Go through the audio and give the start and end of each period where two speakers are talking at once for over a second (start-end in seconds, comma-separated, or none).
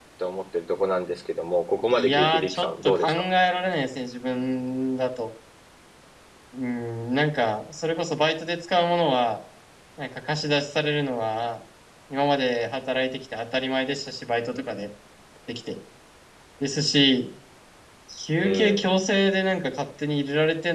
1.9-3.3